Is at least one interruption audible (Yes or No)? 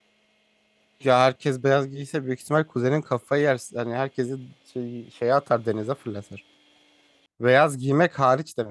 No